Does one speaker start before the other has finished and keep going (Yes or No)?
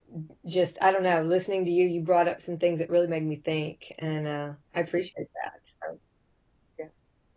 No